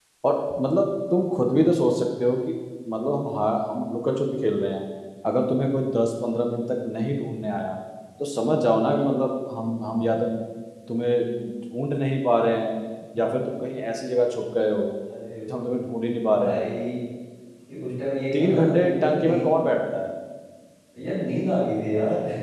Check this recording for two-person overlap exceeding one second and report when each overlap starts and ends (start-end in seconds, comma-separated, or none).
18.3-19.6